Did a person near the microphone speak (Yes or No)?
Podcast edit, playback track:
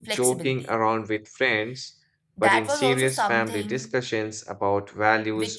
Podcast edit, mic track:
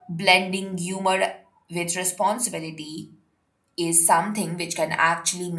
Yes